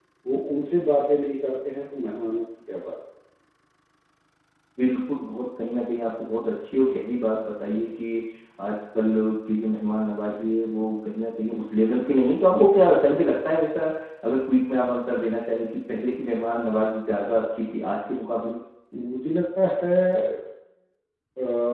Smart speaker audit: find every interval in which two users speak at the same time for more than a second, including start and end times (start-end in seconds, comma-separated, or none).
none